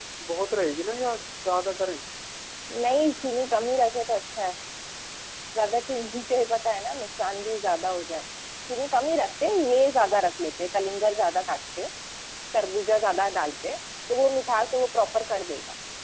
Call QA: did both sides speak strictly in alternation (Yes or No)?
Yes